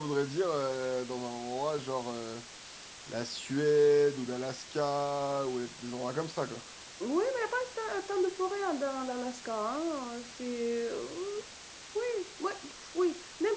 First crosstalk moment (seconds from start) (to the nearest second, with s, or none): none